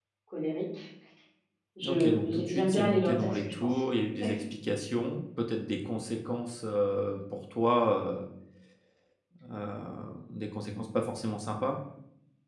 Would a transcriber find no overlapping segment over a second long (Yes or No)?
No